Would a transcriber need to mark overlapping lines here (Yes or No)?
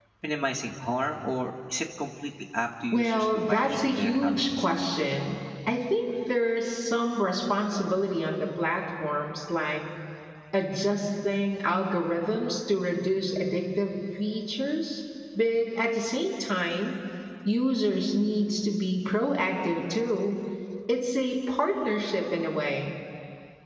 Yes